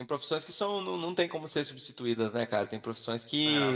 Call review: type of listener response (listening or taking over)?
listening